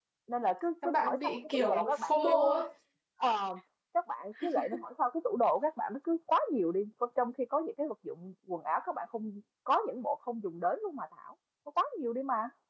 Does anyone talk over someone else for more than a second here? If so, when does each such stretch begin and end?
0.8-2.4

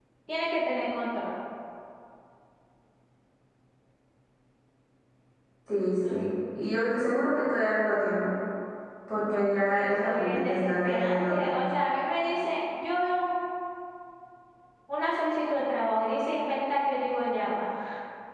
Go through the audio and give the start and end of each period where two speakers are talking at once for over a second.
9.3-11.6

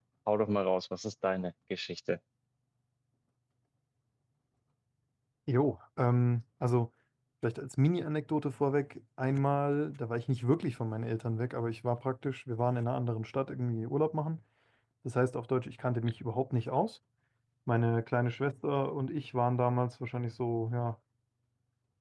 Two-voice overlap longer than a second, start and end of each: none

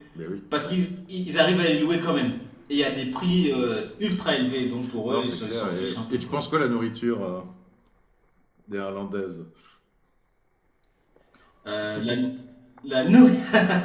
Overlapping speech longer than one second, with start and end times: 5.1-6.4

